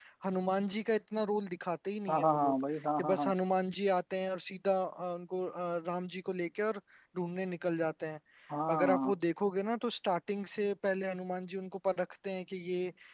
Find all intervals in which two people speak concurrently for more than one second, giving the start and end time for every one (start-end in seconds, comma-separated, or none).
2.1-3.3